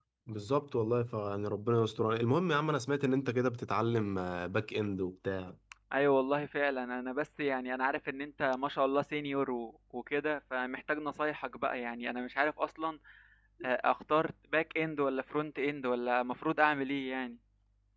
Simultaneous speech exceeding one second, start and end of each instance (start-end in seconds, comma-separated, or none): none